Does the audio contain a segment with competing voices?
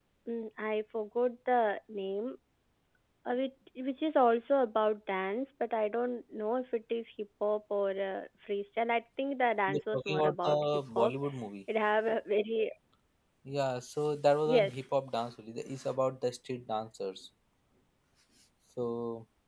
Yes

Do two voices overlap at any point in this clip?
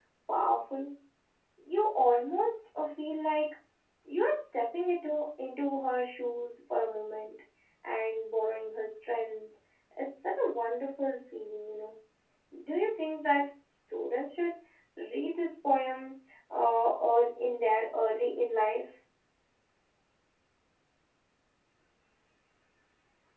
No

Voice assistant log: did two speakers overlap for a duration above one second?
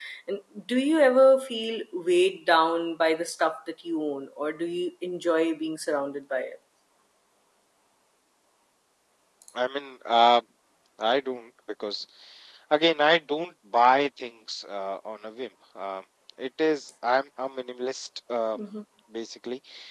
No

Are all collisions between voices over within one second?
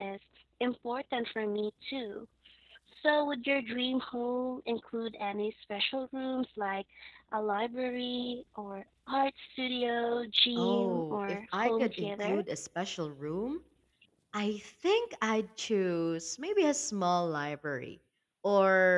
No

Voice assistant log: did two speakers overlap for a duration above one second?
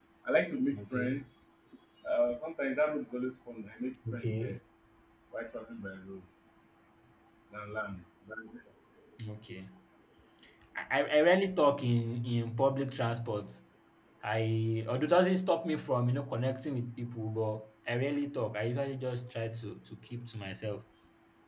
No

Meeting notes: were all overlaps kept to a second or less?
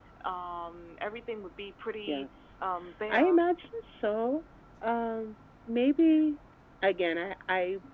Yes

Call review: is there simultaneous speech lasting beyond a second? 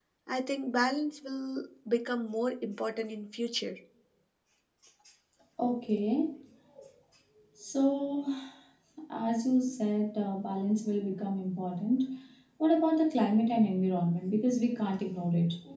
No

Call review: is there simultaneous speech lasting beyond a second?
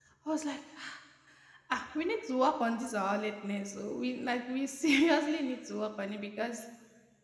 No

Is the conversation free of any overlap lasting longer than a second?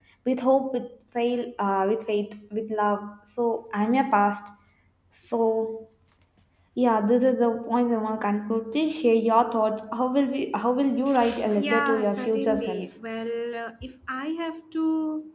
No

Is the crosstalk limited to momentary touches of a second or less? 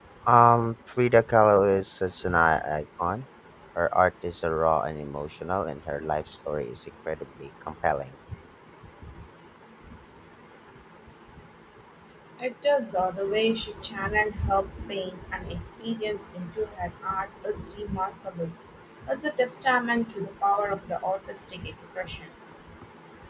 Yes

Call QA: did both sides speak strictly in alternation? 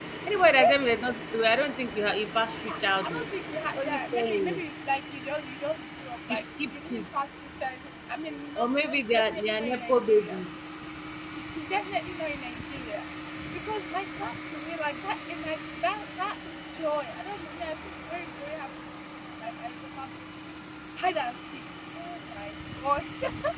No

